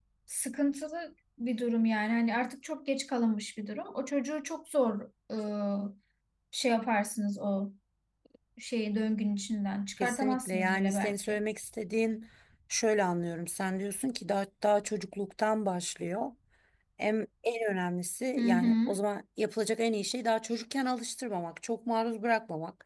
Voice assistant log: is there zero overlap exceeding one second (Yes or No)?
No